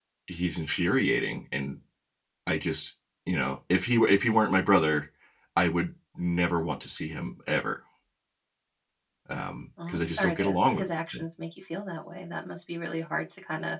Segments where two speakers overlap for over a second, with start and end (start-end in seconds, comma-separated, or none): 9.9-11.2